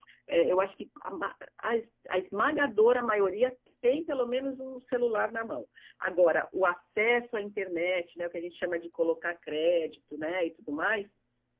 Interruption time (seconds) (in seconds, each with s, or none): none